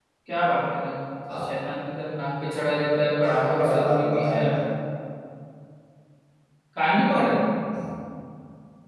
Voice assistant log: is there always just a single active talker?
No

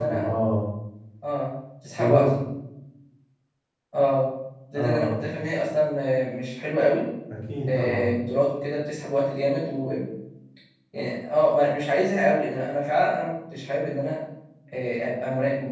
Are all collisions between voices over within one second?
Yes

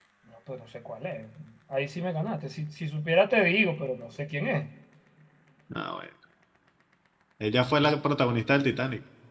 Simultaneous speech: No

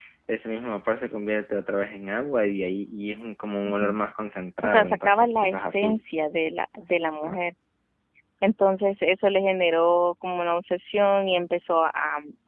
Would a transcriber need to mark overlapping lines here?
Yes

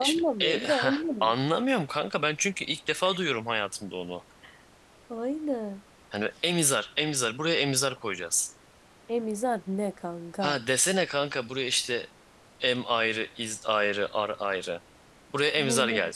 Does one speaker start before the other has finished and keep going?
Yes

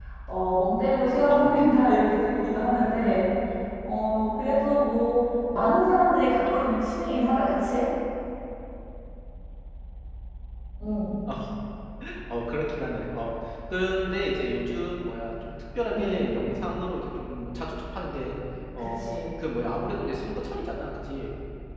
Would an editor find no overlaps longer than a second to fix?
Yes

